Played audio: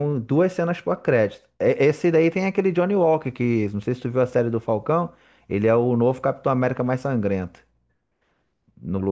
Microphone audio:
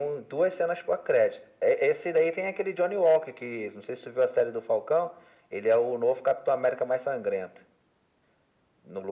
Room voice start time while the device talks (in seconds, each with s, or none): none